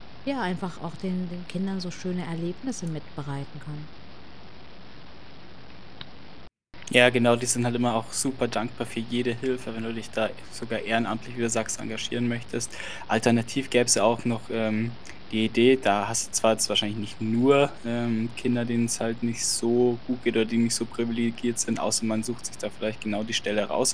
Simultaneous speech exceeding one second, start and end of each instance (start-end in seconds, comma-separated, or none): none